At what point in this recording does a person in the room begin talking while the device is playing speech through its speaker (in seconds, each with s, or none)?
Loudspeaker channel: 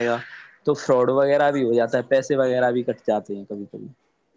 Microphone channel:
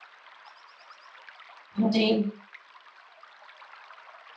1.8 s